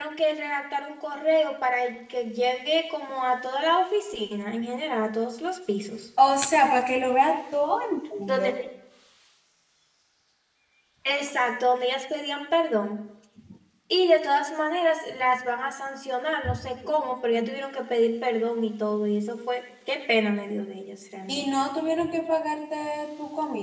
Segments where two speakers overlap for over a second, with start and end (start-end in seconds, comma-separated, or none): none